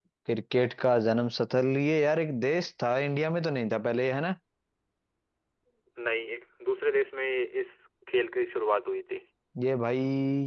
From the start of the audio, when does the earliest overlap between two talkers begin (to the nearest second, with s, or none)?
none